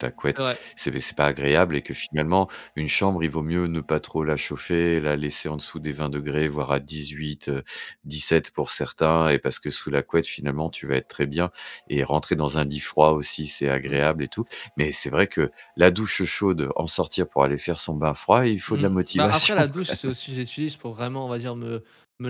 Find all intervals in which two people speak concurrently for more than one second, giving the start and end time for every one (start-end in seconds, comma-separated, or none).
18.7-20.1